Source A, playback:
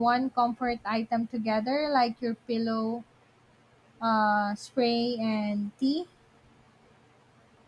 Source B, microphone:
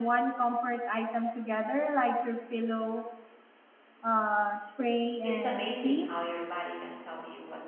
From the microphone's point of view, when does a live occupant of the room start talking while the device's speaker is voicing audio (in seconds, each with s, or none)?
5.2 s